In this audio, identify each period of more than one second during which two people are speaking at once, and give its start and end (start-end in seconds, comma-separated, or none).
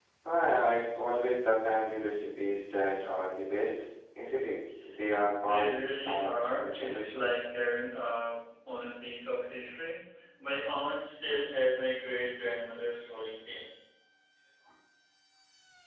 5.4-7.3